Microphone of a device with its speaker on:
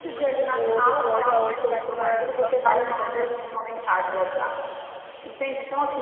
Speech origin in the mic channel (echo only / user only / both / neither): both